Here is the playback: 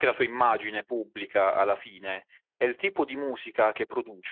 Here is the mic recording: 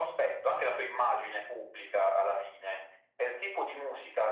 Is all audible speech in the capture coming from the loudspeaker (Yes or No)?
Yes